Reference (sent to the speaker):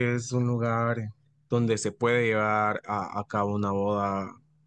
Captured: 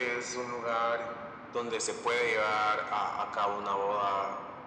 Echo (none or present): present